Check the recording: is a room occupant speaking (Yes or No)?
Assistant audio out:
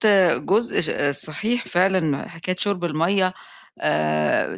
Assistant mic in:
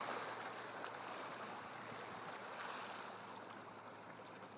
No